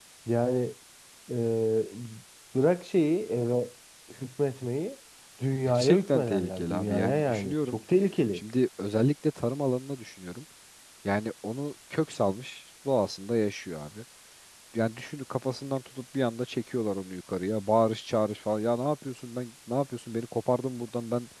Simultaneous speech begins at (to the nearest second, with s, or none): 6 s